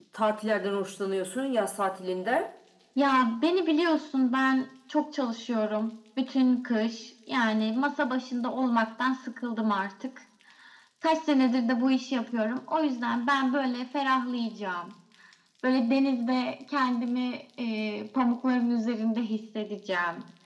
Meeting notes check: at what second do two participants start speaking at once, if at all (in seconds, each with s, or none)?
none